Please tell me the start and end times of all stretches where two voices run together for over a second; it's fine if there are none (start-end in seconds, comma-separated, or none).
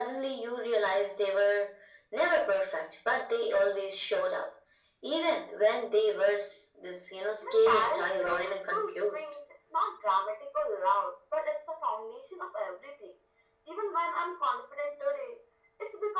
7.4-9.3